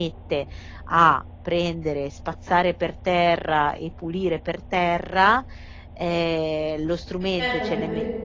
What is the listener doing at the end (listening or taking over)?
taking over